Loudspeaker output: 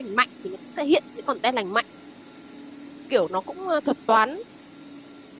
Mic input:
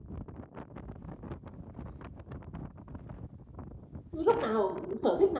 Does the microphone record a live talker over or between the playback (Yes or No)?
Yes